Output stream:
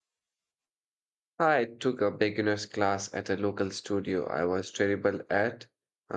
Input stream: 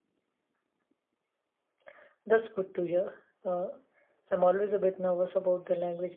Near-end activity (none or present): present